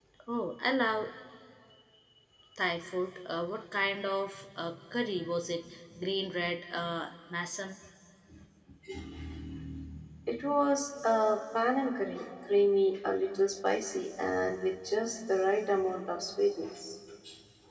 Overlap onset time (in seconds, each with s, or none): none